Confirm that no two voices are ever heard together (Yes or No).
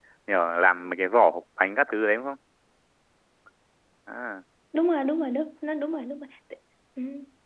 Yes